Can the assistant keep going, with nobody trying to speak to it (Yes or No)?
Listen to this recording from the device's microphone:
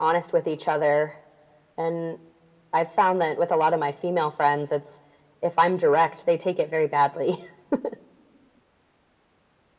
Yes